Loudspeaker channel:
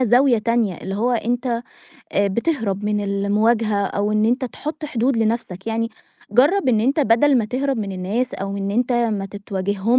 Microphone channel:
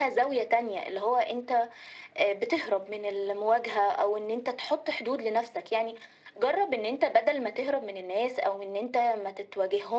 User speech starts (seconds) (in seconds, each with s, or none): none